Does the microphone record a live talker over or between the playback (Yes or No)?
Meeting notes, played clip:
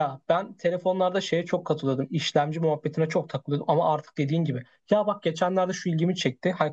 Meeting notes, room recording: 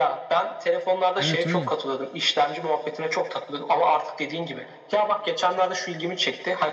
Yes